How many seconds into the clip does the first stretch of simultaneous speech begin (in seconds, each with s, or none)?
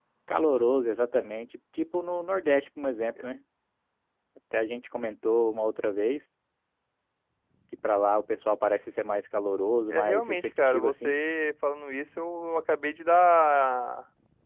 9.9 s